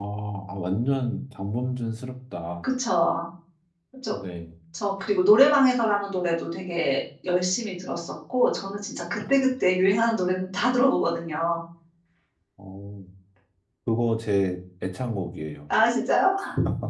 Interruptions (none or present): none